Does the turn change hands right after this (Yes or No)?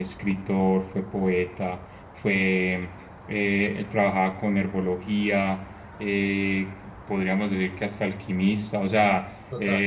No